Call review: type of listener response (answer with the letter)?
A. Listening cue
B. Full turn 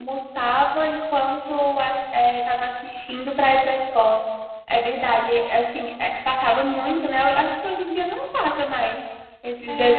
B